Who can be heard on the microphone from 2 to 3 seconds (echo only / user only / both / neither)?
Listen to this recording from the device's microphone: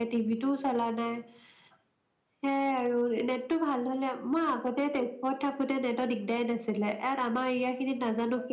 user only